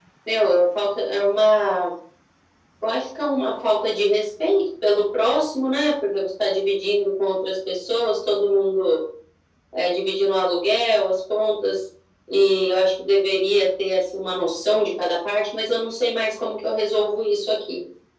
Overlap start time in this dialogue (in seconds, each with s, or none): none